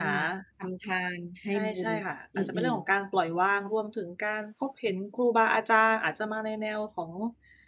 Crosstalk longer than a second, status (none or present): none